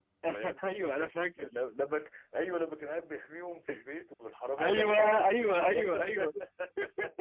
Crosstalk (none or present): present